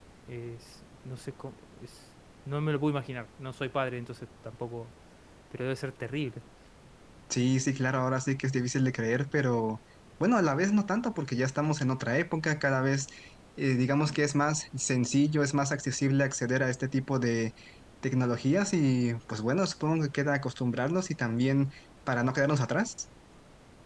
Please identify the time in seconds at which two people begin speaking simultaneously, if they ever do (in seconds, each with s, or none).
none